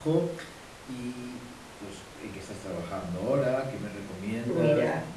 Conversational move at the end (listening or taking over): listening